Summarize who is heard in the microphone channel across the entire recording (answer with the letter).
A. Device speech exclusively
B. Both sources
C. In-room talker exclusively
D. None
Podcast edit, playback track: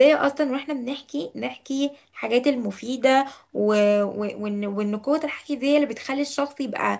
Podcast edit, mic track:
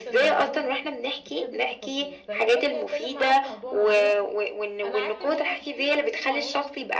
B